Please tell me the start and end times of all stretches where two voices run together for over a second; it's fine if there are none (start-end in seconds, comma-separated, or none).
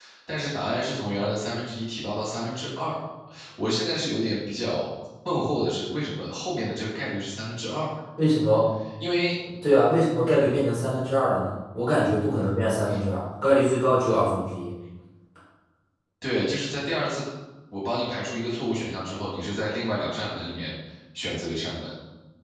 none